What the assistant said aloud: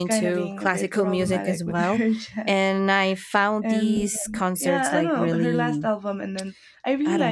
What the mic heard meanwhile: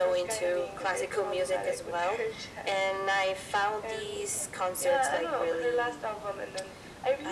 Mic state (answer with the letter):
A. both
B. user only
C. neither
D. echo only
D